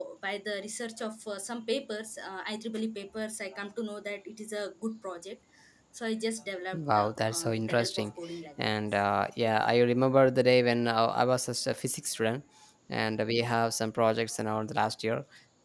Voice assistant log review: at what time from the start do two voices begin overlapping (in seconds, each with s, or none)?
6.7 s